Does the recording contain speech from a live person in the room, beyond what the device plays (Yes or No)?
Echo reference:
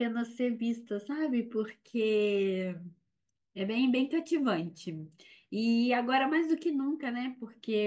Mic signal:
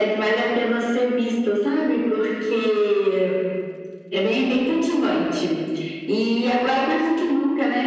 No